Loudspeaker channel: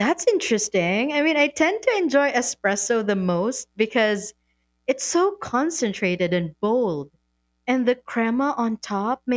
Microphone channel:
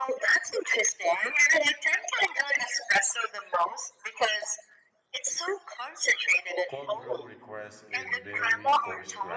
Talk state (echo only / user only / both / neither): both